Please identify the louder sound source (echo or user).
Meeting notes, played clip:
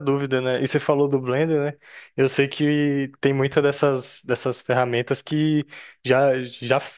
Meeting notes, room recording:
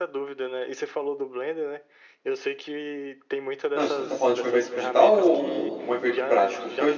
user